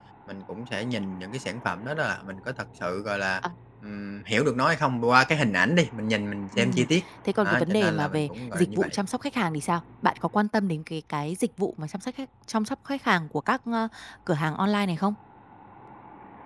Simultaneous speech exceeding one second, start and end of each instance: 7.4-9.0

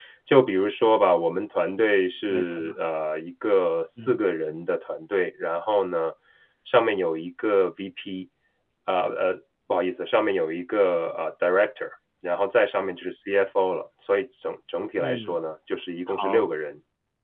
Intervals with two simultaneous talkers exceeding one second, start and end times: none

